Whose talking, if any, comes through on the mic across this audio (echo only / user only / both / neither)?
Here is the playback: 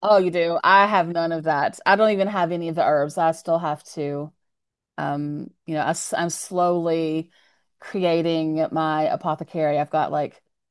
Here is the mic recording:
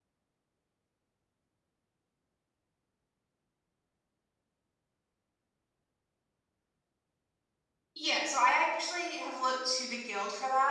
user only